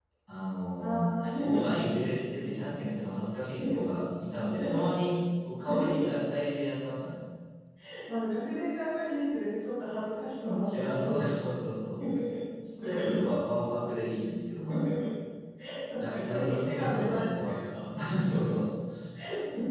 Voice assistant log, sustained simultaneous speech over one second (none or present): present